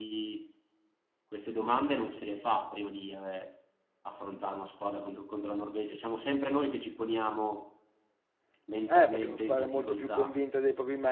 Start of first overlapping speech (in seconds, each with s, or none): 8.9 s